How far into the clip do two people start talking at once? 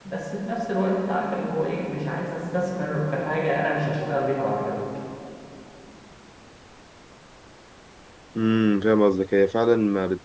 none

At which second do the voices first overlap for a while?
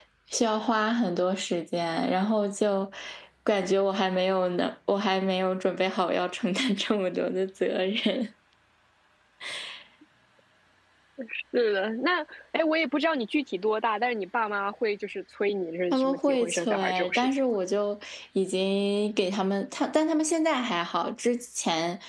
15.9 s

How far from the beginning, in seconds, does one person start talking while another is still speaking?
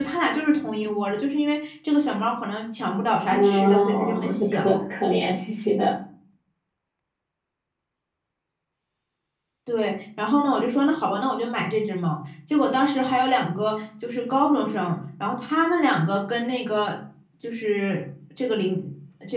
3.3 s

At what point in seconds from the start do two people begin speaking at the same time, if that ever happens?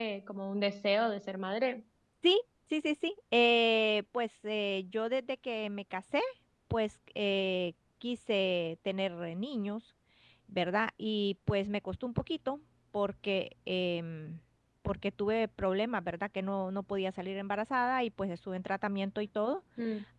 none

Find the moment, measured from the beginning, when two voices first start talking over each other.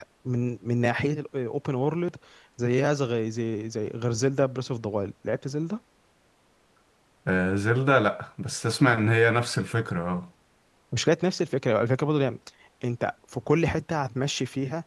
none

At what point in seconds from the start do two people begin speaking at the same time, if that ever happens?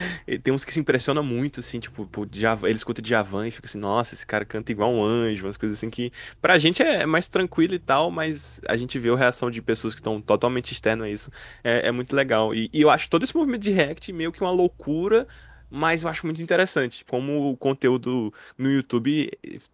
none

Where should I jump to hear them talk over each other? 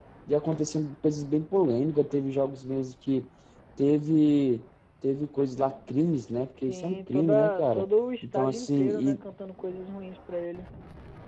6.7 s

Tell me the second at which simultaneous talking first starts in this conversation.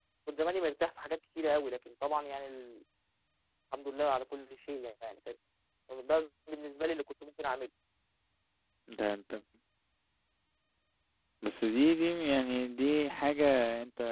none

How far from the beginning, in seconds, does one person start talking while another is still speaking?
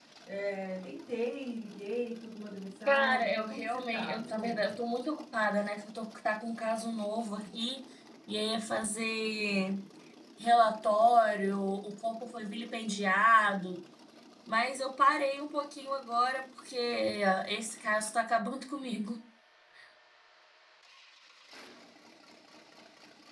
2.9 s

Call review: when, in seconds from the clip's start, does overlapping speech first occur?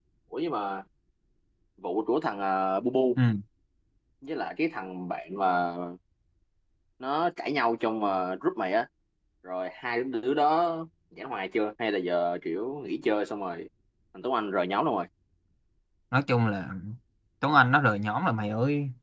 none

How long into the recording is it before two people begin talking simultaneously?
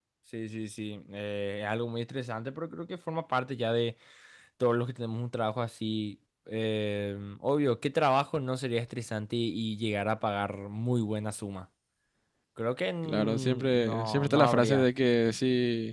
13.1 s

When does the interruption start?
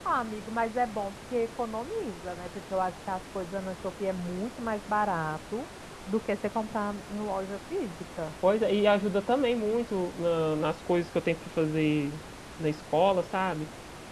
none

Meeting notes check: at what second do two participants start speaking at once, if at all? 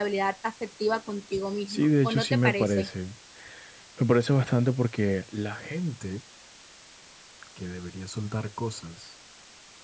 1.7 s

